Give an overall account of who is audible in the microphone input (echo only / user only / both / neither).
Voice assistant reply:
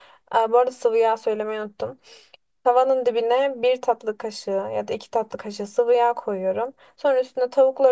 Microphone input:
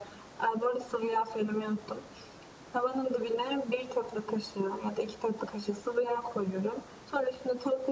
echo only